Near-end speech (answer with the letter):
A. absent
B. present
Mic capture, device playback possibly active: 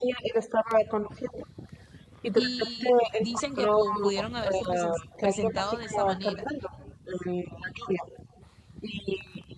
B